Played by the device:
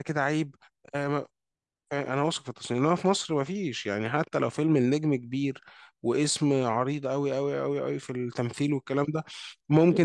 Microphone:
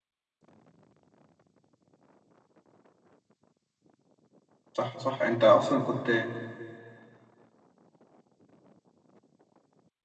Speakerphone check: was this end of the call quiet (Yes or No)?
No